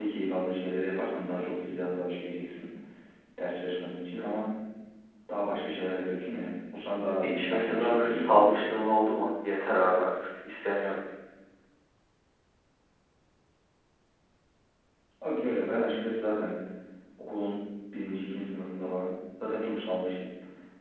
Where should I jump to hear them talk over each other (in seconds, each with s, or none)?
7.2 s